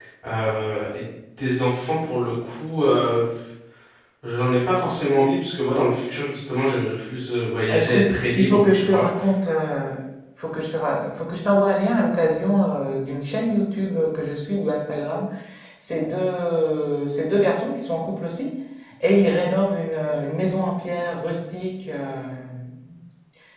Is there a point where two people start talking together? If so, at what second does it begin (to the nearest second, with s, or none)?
8 s